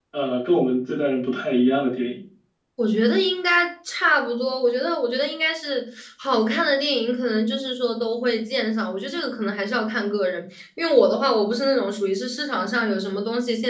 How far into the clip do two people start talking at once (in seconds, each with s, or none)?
none